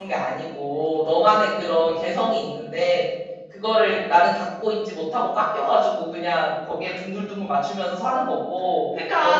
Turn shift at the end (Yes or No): Yes